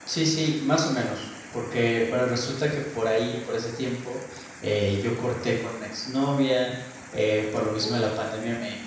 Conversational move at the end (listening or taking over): listening